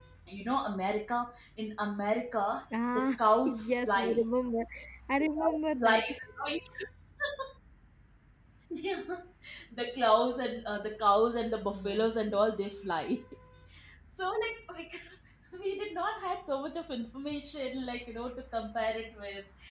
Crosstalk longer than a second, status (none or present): present